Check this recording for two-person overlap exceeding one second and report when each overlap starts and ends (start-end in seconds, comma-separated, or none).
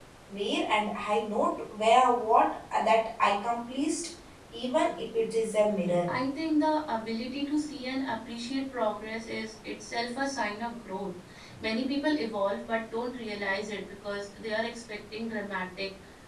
none